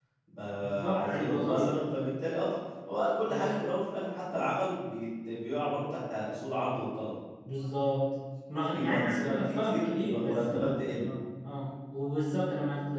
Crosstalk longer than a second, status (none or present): present